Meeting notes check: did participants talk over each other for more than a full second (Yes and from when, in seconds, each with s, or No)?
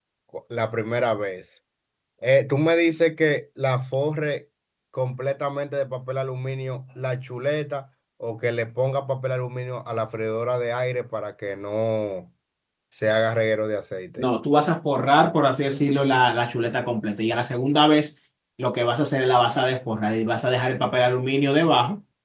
No